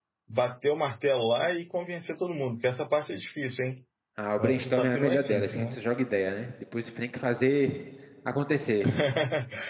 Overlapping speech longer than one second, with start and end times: 4.4-5.8

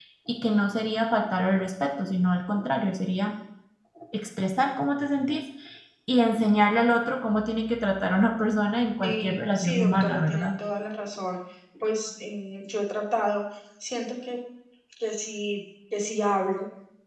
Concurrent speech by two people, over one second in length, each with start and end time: 9.0-10.5

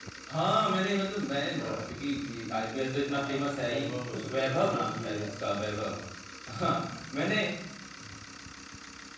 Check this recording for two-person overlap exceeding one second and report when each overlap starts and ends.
3.1-6.0

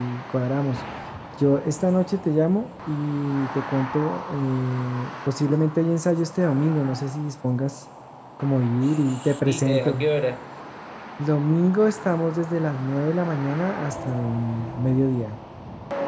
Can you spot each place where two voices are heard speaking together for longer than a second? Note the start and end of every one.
8.8-10.1

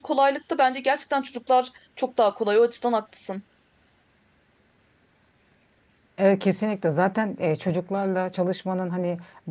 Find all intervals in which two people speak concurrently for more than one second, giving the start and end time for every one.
none

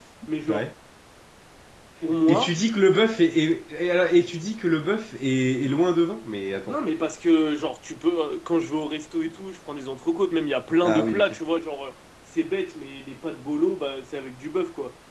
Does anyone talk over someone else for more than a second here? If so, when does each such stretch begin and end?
none

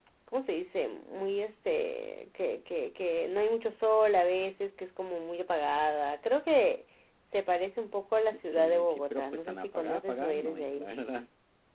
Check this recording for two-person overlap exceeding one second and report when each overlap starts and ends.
8.4-10.9

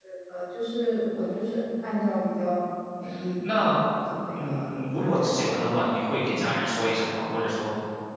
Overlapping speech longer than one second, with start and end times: 4.3-5.6

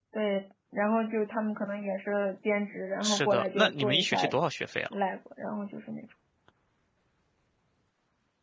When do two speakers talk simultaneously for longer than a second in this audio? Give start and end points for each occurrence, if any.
3.0-4.3

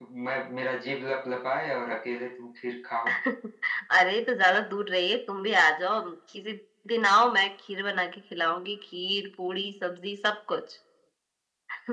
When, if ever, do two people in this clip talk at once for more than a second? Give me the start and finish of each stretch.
none

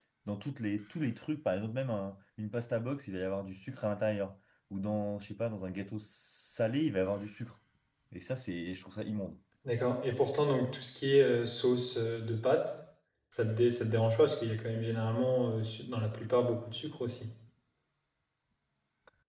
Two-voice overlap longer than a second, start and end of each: none

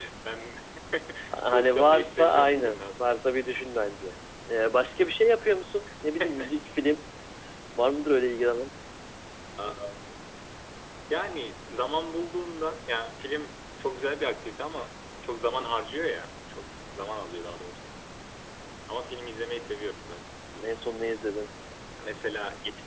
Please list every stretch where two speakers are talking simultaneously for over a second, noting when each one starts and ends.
1.5-3.2

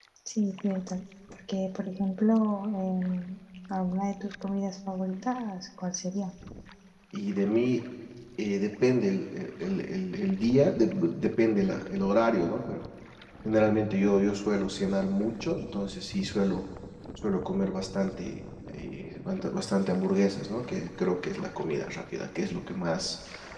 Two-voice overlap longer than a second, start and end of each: none

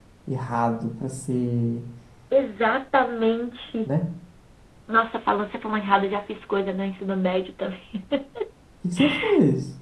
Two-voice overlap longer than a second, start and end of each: none

